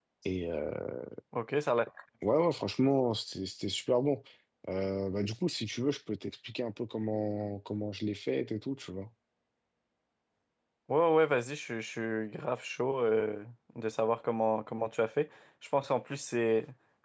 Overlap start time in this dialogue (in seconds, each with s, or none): none